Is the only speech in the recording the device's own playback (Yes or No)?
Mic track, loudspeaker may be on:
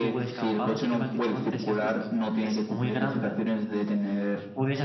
No